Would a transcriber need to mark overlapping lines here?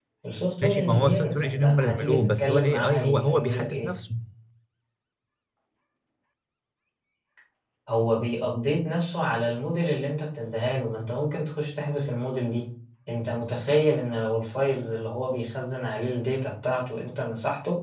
Yes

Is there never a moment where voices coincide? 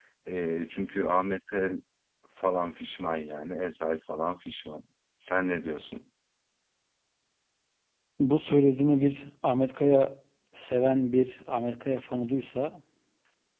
Yes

